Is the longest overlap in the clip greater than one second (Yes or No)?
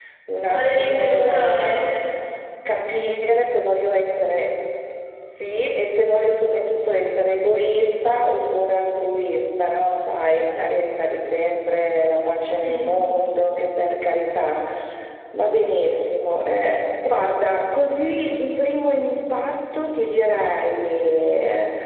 Yes